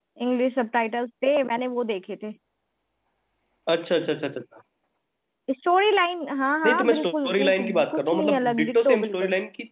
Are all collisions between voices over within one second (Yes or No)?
No